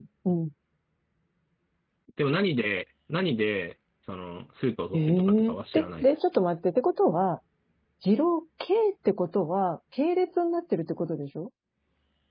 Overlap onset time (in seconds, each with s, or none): 4.9 s